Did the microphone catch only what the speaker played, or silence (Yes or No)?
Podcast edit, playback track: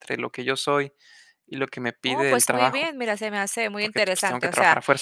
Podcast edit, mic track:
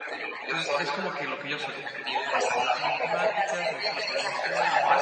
No